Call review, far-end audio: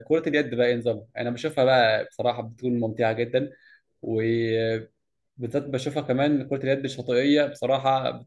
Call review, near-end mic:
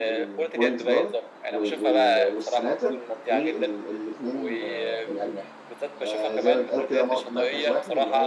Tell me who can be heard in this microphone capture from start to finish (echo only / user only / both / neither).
both